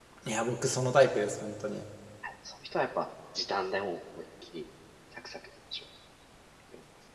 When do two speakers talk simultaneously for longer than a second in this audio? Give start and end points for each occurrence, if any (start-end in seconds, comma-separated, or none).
none